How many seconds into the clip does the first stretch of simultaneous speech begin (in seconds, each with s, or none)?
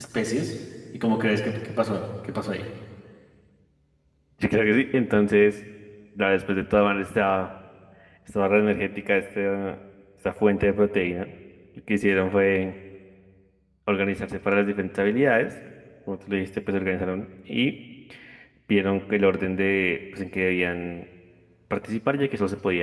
none